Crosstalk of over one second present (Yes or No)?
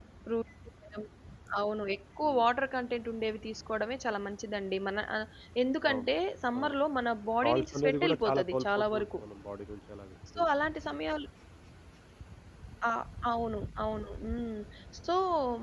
Yes